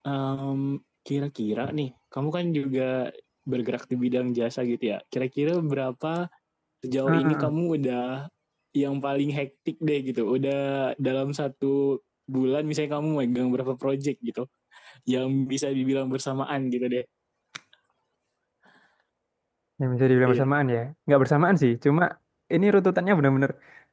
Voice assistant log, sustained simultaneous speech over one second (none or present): none